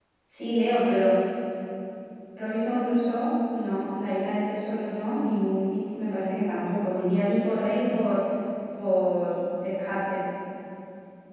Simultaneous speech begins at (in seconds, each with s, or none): none